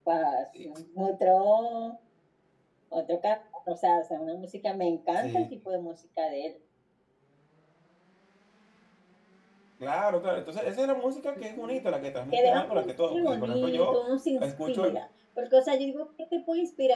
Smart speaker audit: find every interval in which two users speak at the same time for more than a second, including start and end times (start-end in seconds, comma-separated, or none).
12.3-14.0